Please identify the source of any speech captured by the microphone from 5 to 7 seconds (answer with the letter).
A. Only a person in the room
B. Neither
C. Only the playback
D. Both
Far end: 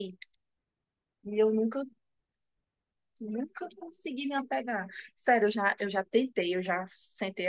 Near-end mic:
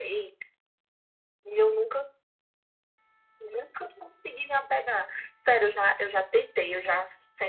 C